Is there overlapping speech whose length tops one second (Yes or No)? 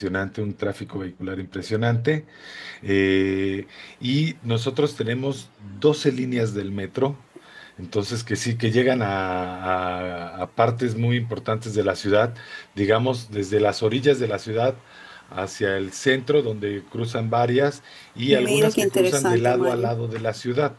Yes